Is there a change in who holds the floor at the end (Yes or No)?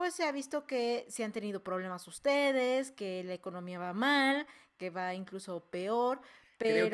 Yes